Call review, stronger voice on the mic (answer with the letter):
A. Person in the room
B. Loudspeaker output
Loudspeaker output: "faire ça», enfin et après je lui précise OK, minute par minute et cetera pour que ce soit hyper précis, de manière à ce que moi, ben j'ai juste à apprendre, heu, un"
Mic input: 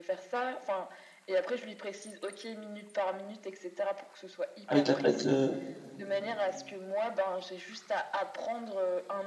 A